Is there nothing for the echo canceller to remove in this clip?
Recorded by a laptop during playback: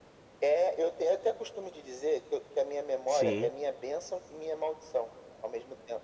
No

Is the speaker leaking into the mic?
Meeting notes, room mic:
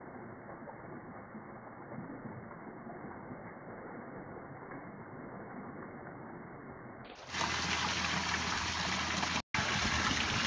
No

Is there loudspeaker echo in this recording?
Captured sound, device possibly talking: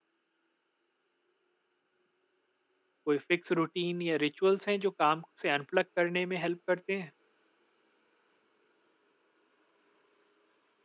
No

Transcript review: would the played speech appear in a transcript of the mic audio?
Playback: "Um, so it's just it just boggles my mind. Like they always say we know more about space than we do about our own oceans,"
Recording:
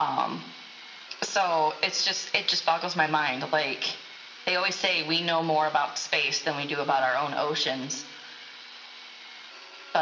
Yes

